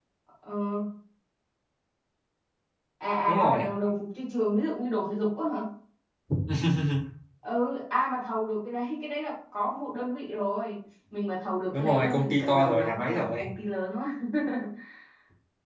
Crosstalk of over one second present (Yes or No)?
Yes